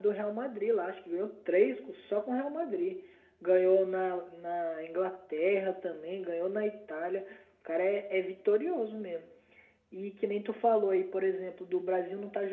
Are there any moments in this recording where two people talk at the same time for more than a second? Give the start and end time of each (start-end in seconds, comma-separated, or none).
none